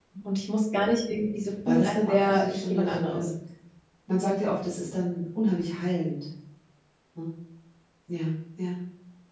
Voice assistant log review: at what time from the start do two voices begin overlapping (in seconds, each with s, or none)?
1.6 s